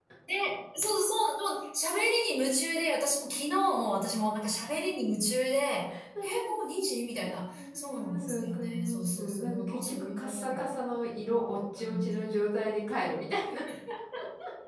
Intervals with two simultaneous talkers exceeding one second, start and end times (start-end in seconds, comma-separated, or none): 7.5-10.6